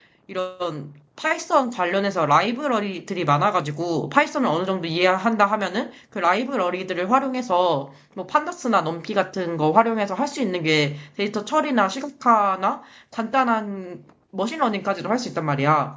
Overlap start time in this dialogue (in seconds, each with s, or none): none